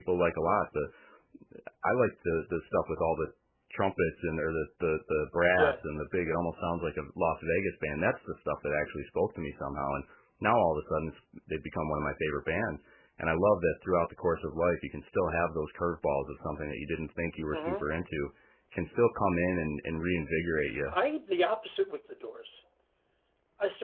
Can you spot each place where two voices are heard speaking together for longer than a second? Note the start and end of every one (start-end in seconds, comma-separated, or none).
none